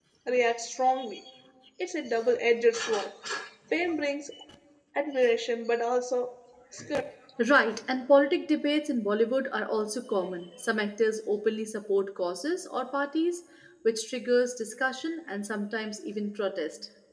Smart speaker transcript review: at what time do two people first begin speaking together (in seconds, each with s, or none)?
none